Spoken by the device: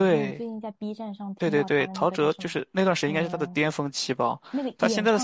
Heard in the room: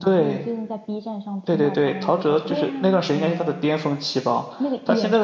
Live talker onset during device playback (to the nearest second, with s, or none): 2 s